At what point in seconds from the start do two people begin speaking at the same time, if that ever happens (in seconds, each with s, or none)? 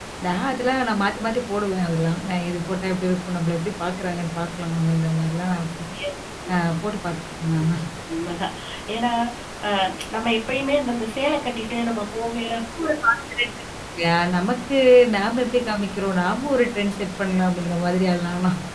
none